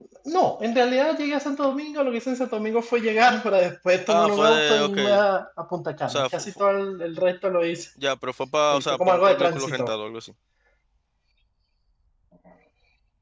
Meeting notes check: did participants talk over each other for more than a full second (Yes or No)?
Yes